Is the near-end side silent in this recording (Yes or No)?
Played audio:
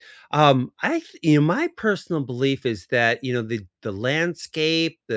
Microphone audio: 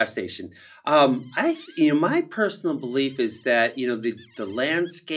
Yes